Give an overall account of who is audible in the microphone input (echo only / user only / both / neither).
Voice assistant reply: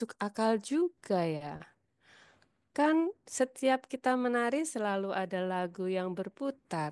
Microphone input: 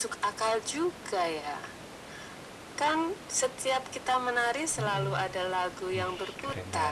both